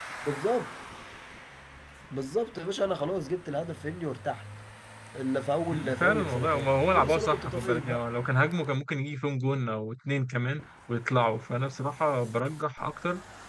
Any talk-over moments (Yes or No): Yes